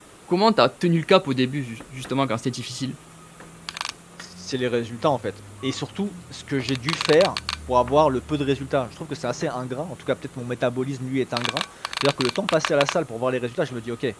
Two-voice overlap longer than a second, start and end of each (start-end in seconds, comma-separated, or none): none